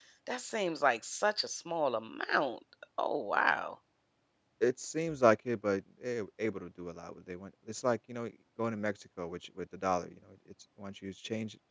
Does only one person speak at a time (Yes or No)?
Yes